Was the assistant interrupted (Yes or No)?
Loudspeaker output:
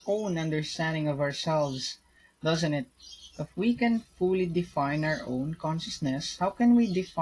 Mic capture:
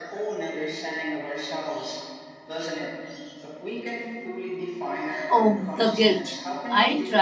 Yes